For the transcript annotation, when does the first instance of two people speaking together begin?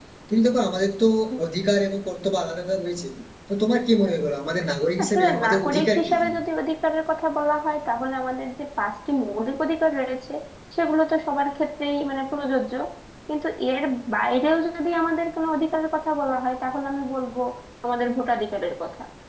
5.0 s

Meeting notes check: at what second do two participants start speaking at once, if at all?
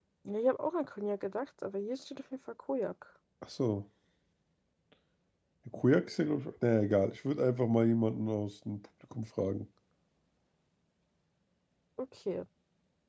none

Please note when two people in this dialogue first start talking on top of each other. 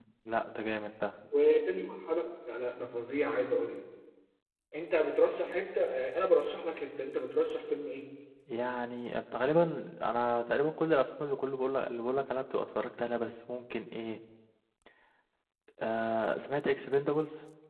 none

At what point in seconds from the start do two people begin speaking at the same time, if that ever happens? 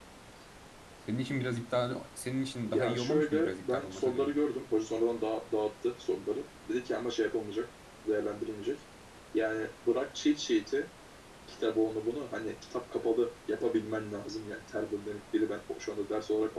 2.7 s

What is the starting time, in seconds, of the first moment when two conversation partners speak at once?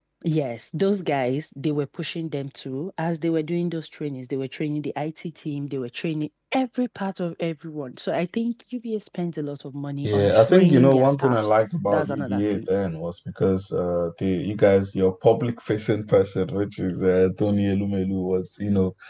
10.0 s

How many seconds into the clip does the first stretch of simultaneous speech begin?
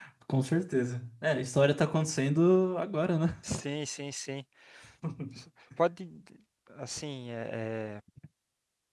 none

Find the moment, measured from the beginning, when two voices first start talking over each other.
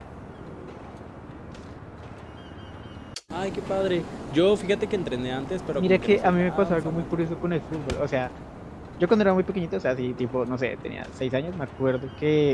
5.8 s

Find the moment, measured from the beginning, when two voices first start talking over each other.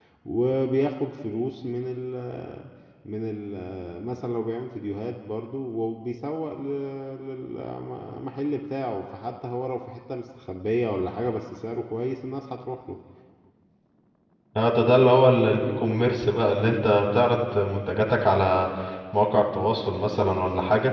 none

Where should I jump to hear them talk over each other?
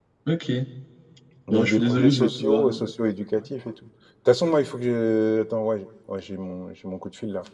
1.5 s

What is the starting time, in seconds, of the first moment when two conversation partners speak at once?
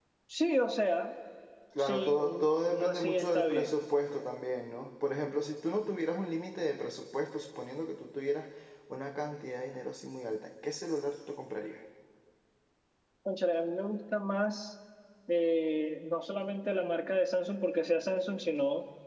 1.8 s

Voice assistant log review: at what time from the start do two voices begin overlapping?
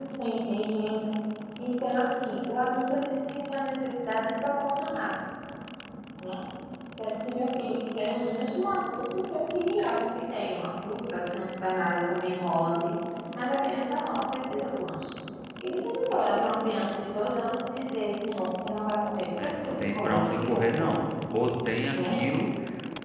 19.4 s

